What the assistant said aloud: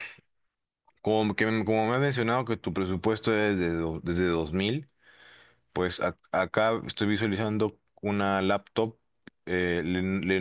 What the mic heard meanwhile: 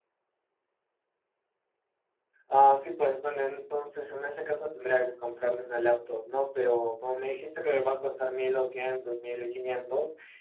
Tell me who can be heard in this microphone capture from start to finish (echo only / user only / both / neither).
user only